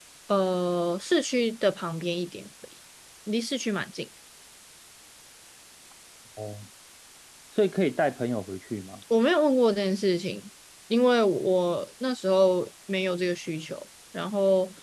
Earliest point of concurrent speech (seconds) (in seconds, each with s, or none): none